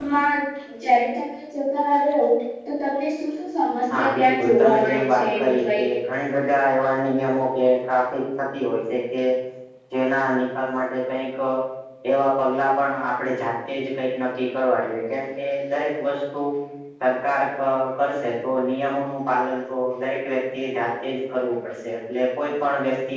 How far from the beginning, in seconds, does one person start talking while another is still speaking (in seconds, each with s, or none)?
3.9 s